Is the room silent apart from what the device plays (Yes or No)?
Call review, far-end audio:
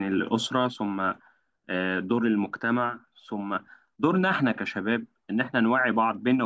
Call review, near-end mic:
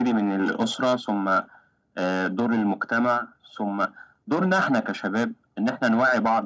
Yes